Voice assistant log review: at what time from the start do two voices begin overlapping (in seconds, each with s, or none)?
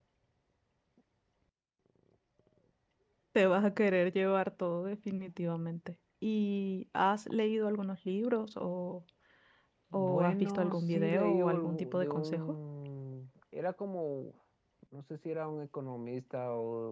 9.9 s